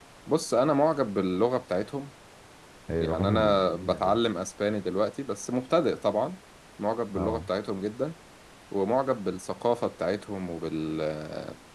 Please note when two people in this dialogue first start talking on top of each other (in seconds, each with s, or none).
3.0 s